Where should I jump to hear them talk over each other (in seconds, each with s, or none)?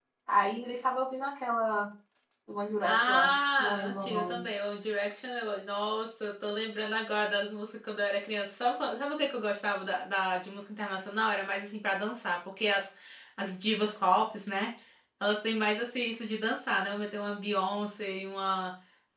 2.8 s